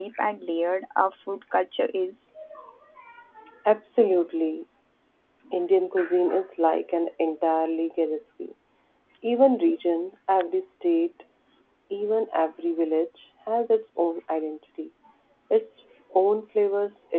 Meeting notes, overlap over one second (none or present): none